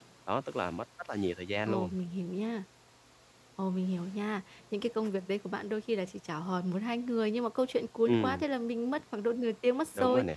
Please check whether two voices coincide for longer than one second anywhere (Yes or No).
No